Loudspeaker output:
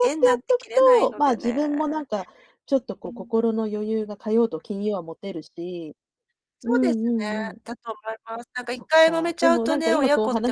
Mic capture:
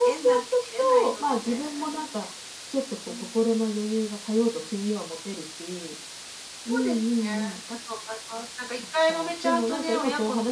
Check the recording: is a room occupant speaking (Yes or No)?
No